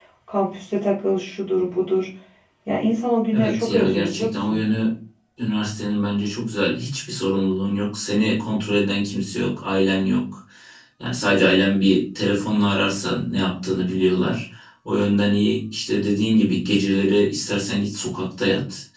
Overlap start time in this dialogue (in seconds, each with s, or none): 3.3 s